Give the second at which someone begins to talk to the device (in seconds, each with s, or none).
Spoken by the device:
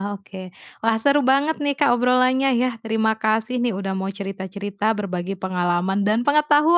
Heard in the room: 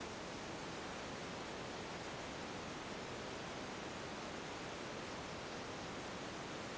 none